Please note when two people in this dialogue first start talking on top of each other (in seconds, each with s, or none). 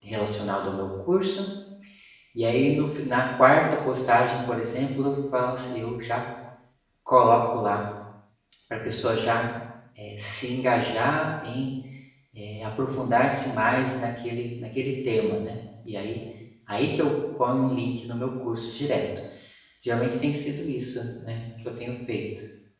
none